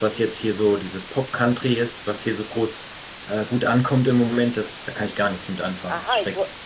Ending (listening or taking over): taking over